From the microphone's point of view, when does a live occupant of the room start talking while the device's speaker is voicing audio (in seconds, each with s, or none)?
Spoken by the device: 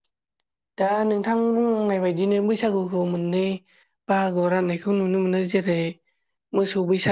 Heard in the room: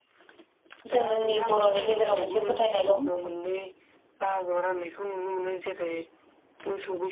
0.9 s